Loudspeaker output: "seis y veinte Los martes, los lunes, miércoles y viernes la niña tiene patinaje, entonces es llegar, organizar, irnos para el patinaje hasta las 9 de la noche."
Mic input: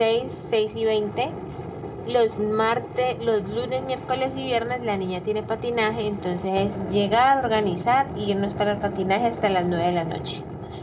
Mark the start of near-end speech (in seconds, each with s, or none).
none